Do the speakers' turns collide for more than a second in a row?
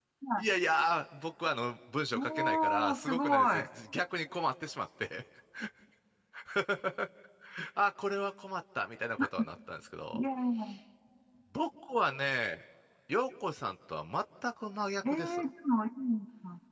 Yes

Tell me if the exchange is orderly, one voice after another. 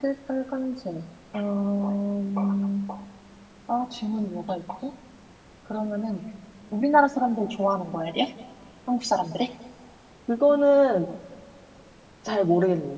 Yes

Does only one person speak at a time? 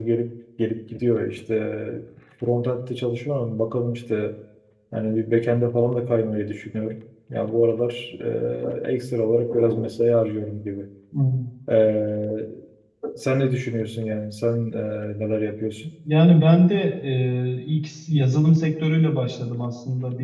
Yes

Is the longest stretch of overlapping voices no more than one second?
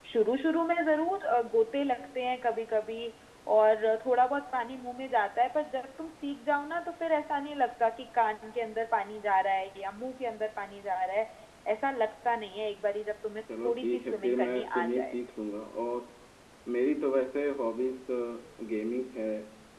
No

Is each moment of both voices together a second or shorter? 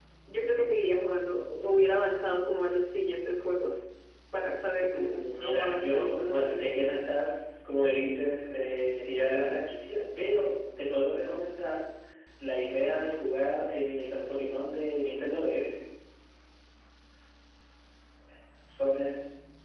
No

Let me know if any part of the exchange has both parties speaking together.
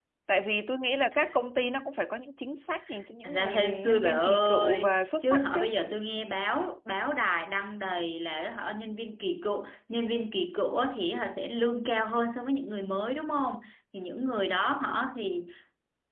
Yes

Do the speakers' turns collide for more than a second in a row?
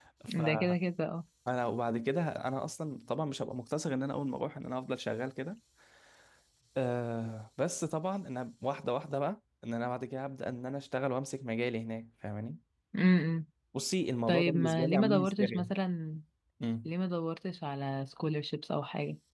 Yes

